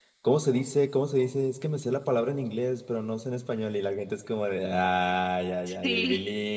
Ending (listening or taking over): listening